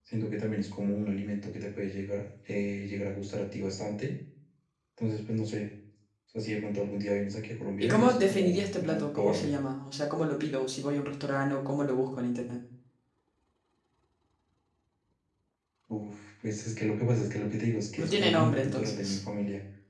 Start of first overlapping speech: 7.8 s

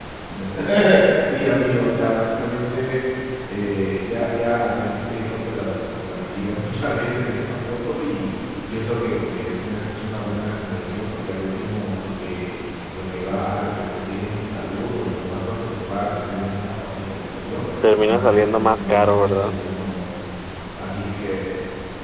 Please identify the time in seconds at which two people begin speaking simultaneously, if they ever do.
17.8 s

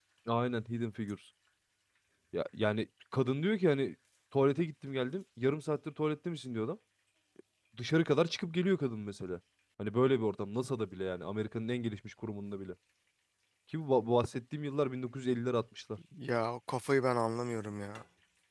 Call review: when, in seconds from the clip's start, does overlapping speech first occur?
none

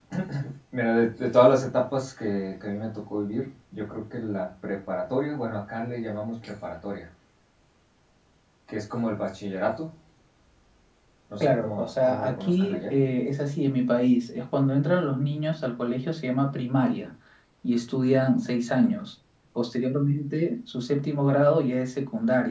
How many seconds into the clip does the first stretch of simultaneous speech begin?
11.4 s

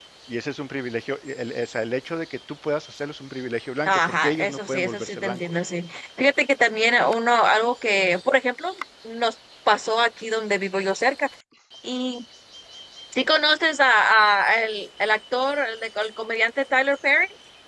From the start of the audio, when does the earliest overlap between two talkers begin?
3.8 s

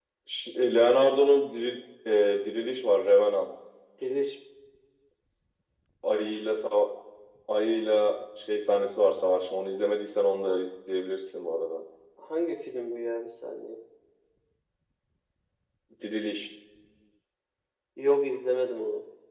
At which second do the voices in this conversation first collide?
none

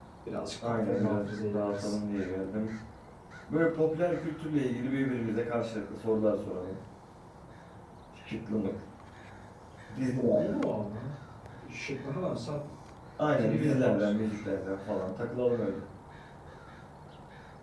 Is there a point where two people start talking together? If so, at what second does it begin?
0.6 s

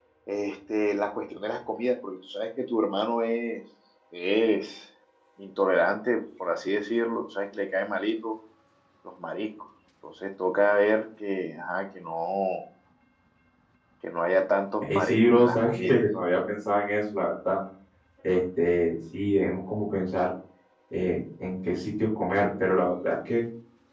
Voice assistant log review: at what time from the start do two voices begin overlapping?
14.8 s

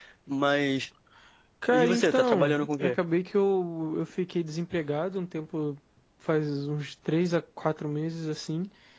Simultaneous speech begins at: 1.7 s

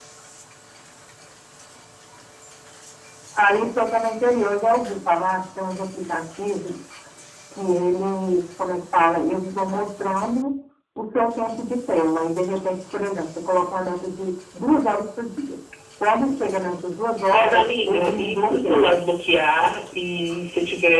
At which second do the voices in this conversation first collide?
17.3 s

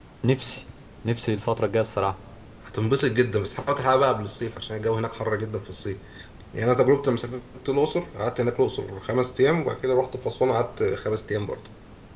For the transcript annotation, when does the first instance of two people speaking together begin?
none

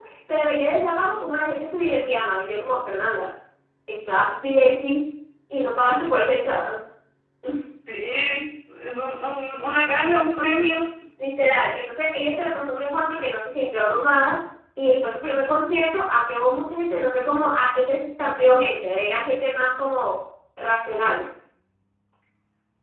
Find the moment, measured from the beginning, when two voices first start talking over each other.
none

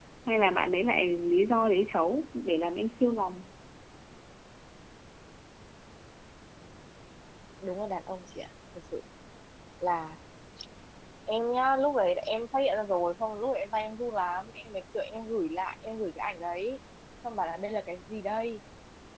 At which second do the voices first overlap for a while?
none

